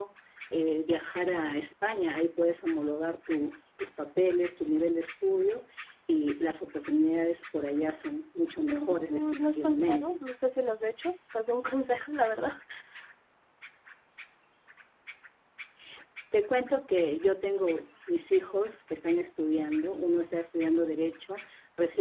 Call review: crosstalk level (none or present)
present